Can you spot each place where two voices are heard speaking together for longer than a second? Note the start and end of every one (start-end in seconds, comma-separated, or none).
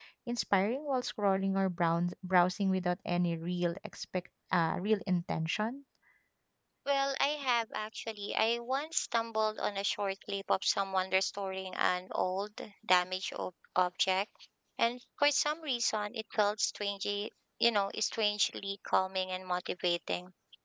none